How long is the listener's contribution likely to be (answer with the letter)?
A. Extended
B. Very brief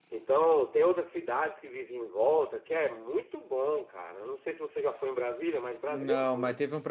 A